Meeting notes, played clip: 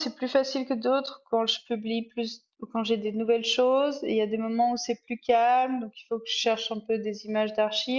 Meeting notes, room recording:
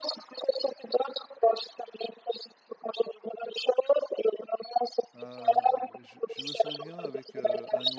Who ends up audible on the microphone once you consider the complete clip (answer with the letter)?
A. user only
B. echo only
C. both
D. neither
C